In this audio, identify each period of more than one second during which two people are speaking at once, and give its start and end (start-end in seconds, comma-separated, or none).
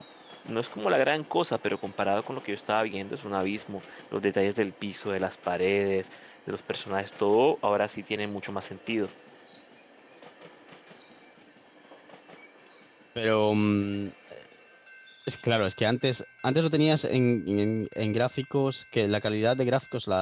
none